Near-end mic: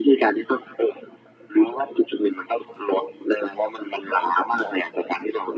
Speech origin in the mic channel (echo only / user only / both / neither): echo only